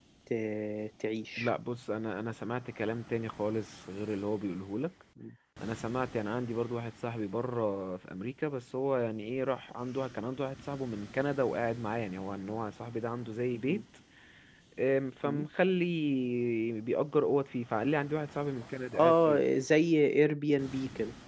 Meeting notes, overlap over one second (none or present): none